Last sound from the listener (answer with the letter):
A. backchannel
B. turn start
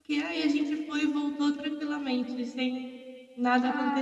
B